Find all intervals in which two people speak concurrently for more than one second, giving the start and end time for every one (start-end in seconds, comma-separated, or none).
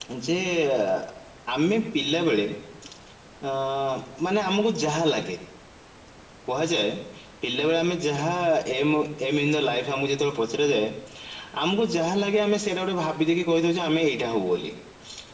none